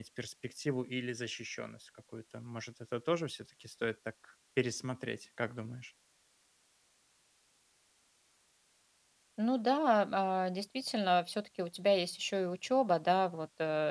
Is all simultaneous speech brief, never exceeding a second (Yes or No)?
Yes